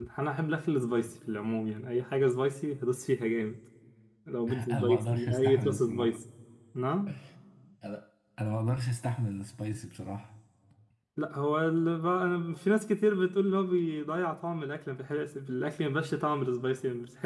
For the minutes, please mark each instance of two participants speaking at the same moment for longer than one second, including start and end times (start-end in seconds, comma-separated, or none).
4.5-6.1